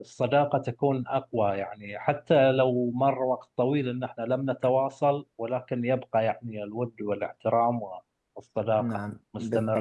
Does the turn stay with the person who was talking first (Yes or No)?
No